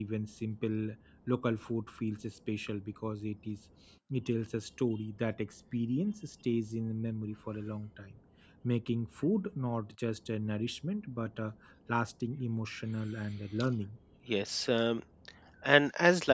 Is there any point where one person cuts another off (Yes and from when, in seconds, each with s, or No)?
No